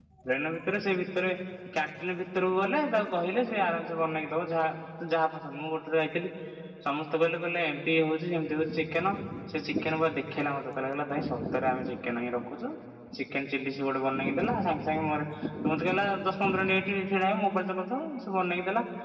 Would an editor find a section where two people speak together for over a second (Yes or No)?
No